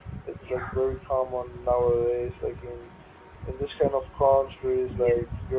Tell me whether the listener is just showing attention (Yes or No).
Yes